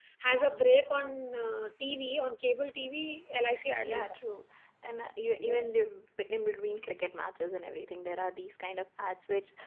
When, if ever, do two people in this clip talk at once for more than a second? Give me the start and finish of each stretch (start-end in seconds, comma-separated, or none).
none